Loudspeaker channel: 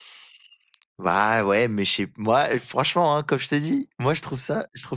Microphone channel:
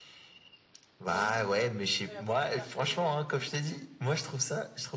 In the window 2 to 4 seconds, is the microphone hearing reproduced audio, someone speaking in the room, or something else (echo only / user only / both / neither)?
both